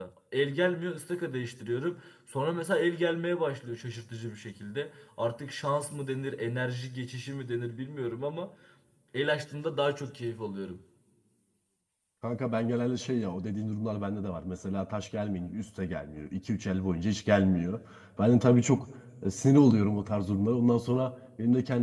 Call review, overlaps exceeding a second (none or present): none